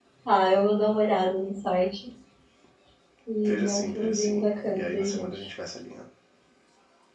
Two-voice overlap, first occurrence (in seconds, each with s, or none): 3.4 s